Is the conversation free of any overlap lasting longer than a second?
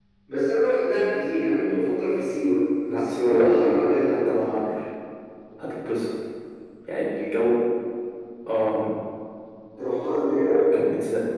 No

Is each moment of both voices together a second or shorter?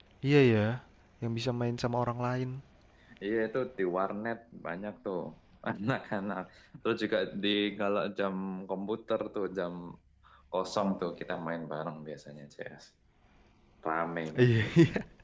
Yes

